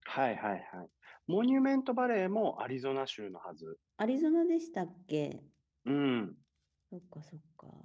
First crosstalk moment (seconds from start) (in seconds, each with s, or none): none